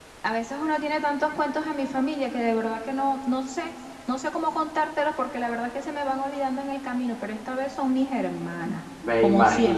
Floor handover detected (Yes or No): Yes